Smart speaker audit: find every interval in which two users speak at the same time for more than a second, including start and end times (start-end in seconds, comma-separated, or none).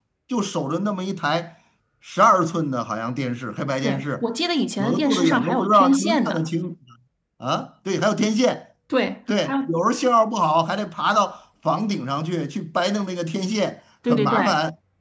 4.8-6.4